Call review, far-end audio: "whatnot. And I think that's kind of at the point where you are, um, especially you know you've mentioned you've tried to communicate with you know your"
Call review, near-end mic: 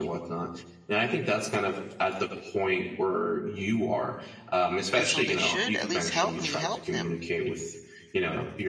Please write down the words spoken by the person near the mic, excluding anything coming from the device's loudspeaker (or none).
And so they should at least help me help them,